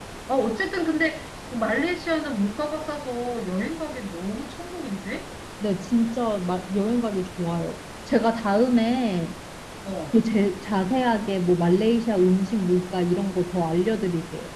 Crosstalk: none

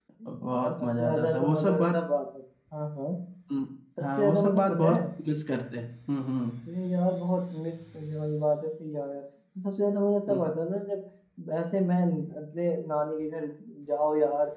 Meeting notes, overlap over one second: present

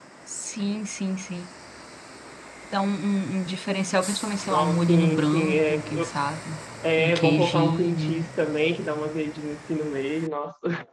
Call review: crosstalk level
present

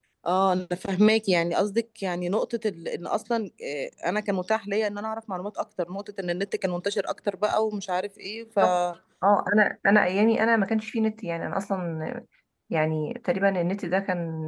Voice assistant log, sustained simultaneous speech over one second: none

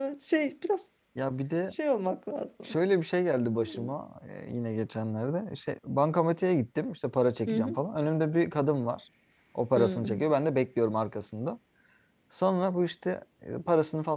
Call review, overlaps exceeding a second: none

